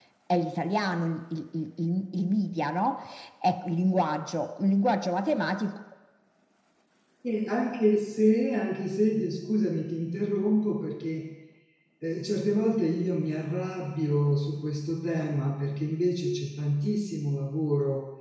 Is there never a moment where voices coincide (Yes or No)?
Yes